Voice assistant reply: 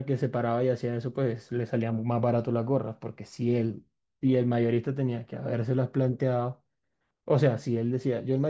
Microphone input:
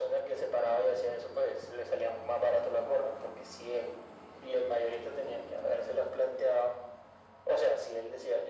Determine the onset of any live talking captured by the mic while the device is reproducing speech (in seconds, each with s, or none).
none